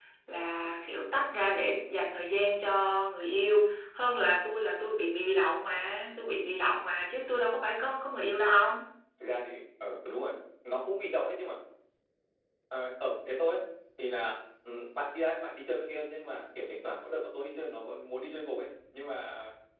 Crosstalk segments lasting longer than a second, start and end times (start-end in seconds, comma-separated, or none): none